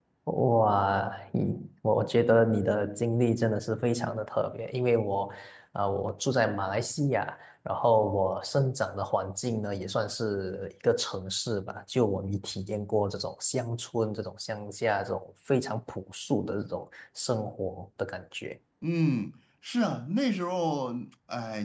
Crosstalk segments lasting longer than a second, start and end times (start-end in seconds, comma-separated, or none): none